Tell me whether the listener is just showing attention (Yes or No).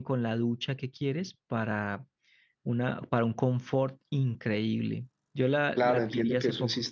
No